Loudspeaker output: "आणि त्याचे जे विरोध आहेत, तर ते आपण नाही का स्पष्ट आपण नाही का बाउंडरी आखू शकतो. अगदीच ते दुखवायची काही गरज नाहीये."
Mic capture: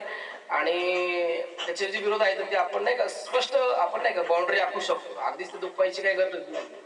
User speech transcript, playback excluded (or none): none